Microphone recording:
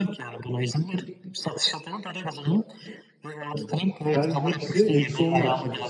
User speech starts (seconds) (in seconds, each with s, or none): 3.5 s